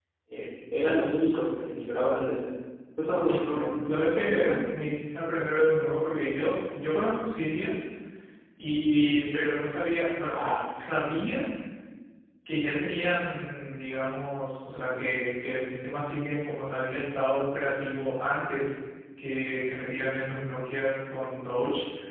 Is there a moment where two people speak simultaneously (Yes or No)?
Yes